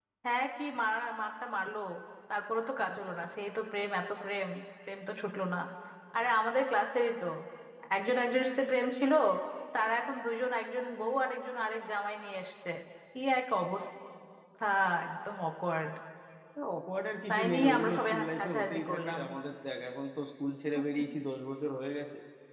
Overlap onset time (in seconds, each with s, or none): 17.3 s